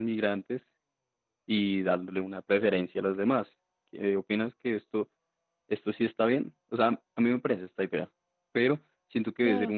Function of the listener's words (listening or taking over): listening